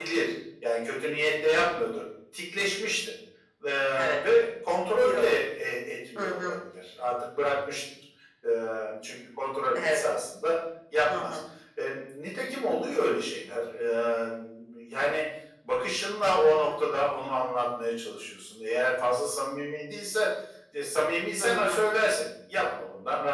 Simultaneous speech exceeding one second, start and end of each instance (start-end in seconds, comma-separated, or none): none